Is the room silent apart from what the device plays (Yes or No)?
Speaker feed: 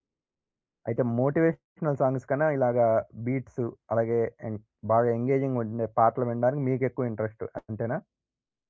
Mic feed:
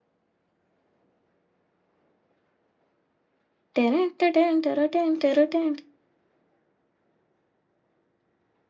No